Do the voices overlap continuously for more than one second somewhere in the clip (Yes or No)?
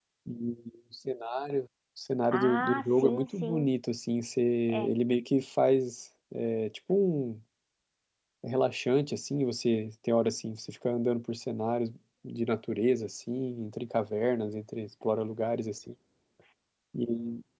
Yes